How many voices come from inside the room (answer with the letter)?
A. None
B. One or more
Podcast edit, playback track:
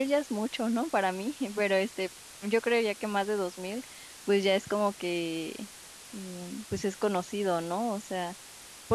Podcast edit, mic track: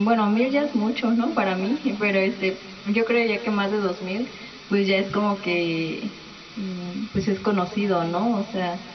A